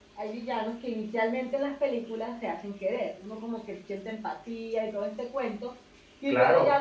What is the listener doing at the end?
listening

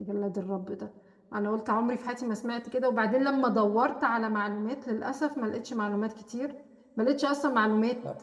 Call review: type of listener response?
listening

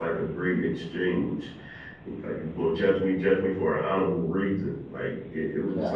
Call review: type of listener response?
listening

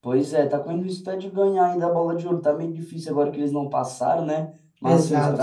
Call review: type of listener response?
listening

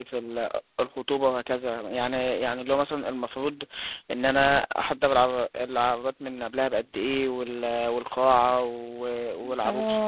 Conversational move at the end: taking over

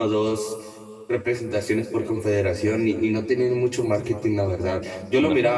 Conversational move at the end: listening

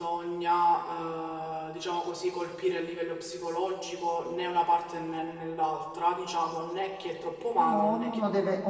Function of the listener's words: taking over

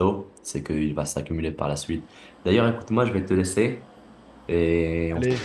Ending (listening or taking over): taking over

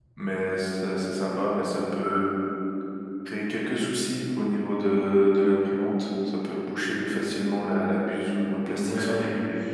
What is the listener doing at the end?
taking over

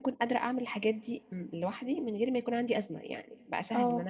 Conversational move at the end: listening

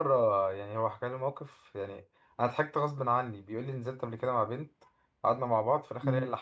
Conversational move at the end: listening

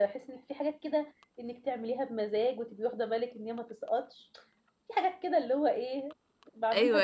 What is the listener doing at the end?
taking over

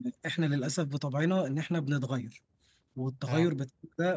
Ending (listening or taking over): listening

